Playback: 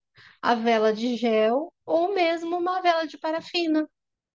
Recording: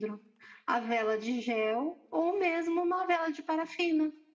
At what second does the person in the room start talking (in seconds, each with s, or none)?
none